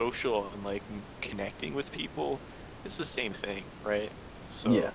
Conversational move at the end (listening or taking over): listening